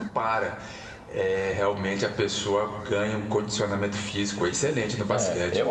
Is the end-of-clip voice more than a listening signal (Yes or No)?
Yes